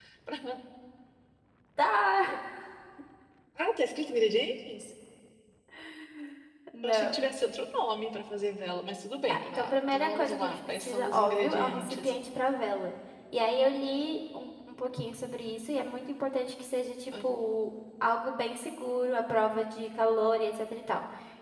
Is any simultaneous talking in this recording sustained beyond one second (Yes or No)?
Yes